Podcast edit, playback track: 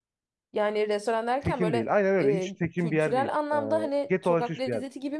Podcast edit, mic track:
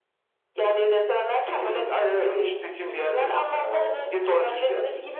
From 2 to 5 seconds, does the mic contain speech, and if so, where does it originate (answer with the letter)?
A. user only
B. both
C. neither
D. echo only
D